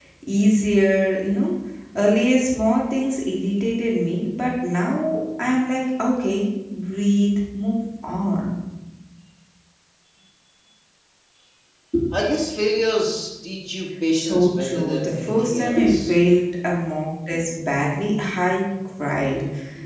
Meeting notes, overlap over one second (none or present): present